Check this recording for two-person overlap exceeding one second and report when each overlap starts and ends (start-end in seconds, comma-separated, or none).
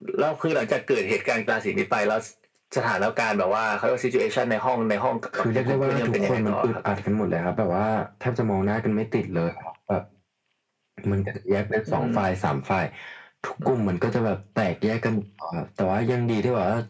5.5-6.8